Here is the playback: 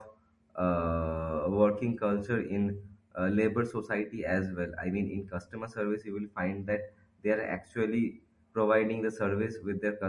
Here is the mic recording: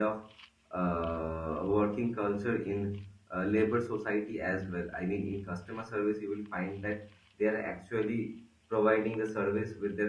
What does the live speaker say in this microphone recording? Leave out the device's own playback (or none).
none